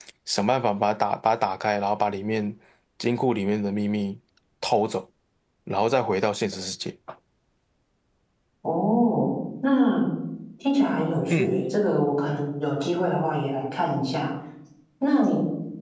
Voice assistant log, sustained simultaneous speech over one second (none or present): none